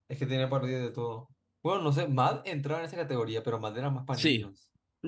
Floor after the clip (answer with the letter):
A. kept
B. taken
B